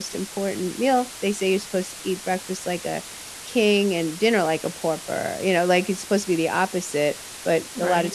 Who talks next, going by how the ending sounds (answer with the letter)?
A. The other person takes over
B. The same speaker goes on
B